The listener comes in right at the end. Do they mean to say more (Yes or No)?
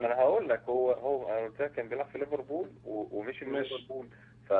No